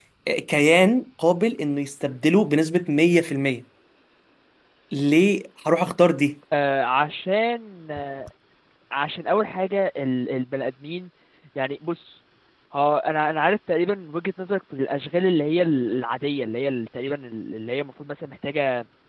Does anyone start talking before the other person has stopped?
No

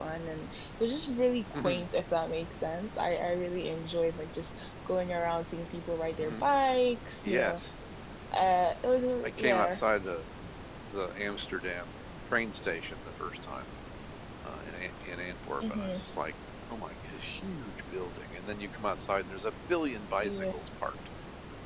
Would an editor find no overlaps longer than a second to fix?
Yes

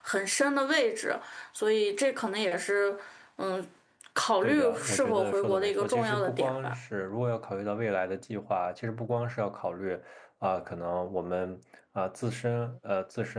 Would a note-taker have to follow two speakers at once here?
Yes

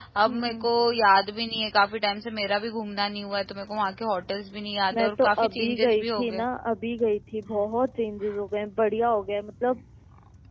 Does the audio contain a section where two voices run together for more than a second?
Yes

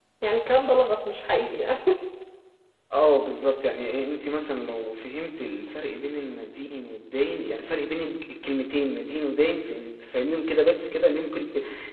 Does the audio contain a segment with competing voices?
No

